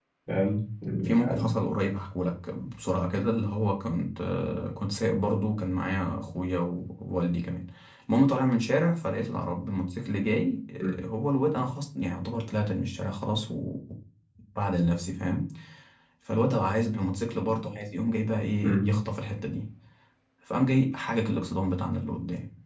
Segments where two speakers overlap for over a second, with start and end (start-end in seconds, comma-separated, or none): none